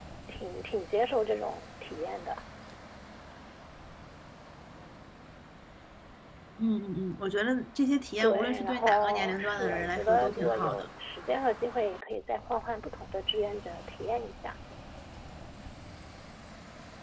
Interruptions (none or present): present